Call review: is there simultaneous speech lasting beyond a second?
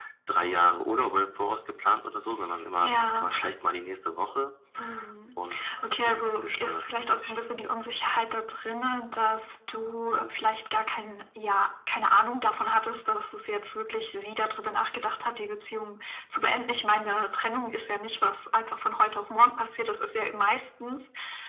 Yes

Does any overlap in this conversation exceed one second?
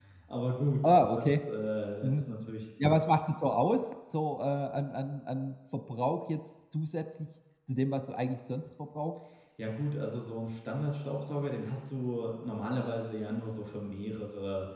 No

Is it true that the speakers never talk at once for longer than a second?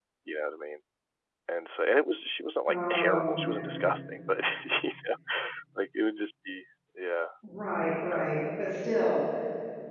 No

